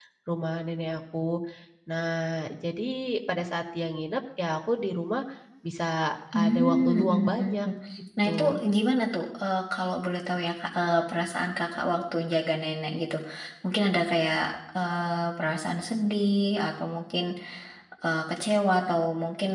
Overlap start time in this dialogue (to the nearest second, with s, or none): 6 s